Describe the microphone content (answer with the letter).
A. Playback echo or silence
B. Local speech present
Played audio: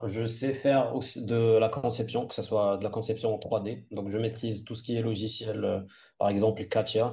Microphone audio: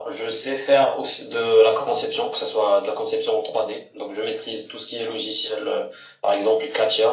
A